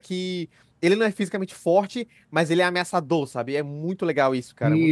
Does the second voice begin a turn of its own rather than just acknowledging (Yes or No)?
Yes